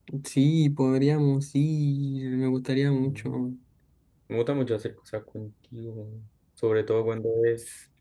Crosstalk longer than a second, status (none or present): none